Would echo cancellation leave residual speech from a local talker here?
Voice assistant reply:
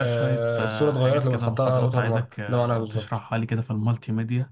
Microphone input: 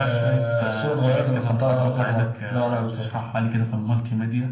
No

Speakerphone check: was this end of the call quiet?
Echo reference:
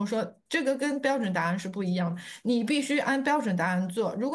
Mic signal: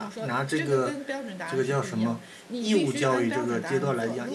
No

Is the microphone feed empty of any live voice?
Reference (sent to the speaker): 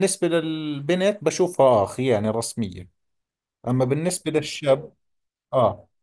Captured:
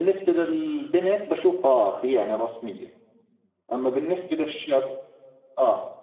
Yes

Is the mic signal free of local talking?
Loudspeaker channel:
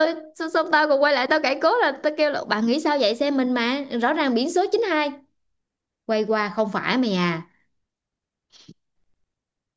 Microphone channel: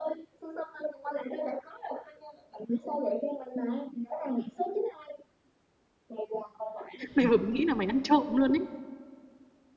No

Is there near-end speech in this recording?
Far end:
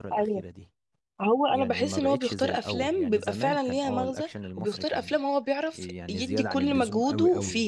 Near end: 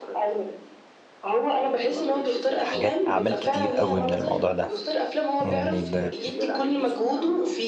Yes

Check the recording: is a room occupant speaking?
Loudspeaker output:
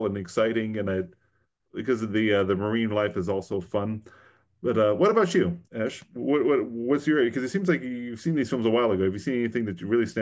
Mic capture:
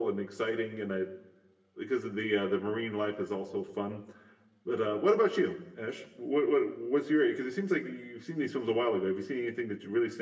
No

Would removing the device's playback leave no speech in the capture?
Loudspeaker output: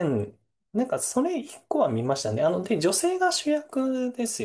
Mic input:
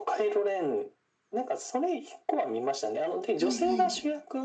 No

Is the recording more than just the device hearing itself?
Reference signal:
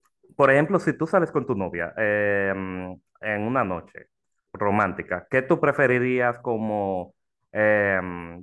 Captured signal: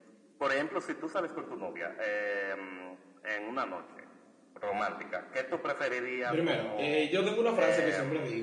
Yes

